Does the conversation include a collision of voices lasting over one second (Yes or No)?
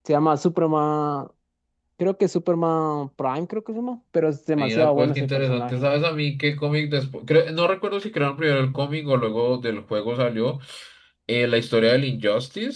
Yes